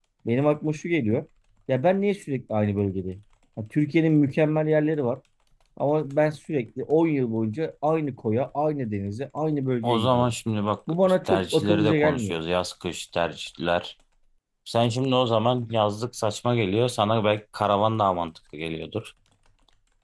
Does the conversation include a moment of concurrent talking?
Yes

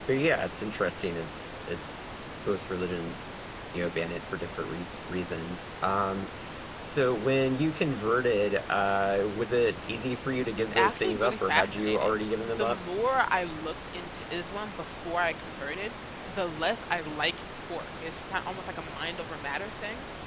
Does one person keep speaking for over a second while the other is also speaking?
Yes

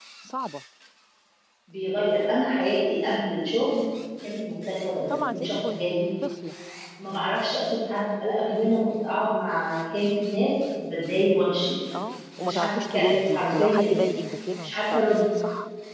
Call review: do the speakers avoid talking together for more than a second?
No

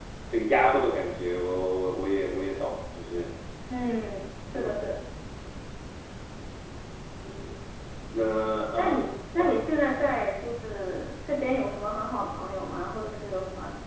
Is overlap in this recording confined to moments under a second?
Yes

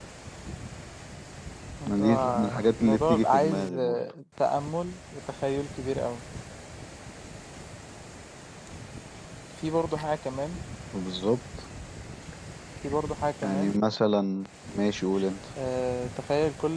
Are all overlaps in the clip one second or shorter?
No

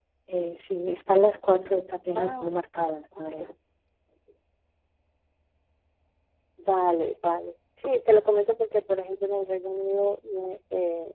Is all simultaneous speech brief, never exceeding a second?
Yes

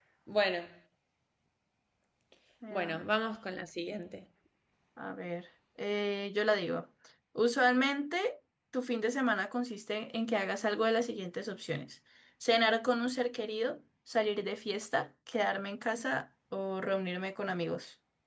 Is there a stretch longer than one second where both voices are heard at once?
No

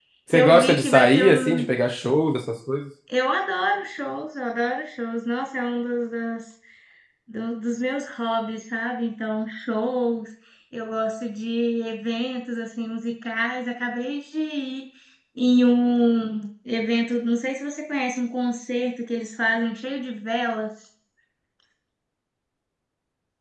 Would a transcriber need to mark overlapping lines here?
Yes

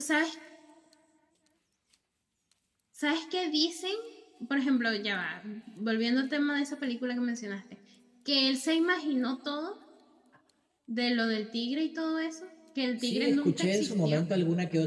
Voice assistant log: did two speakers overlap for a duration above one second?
Yes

